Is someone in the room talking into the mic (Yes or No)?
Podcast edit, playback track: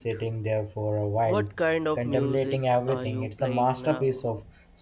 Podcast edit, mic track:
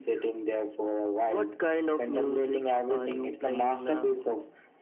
No